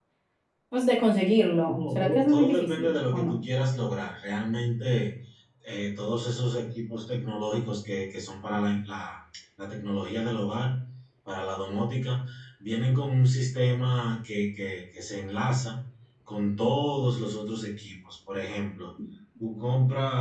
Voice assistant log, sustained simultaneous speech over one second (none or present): present